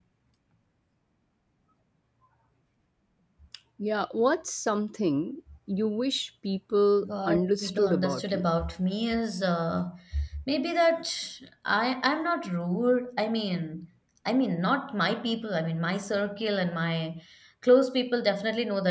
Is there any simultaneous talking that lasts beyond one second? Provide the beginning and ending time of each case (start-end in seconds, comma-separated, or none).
7.0-8.4